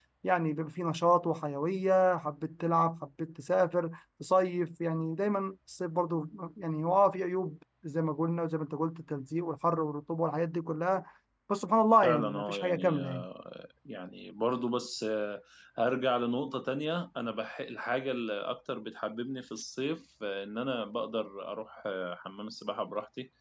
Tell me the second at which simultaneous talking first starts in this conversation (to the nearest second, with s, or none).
12 s